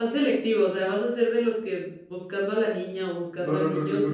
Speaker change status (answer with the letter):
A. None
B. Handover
B